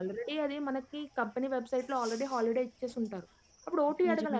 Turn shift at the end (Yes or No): No